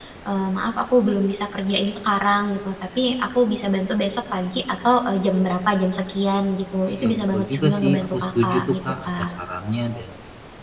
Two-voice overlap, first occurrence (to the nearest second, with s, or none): 7 s